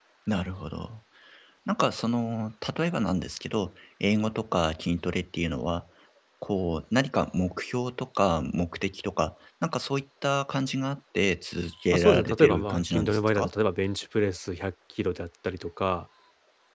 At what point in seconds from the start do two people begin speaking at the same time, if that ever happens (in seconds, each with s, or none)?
11.9 s